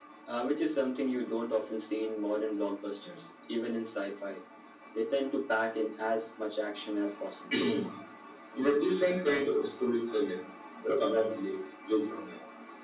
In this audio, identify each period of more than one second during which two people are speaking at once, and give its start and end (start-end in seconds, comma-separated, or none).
none